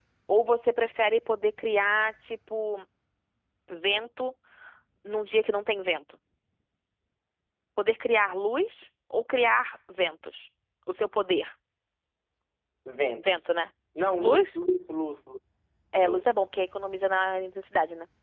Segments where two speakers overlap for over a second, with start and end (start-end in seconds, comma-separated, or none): none